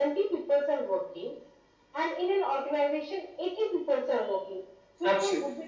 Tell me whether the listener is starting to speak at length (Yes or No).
No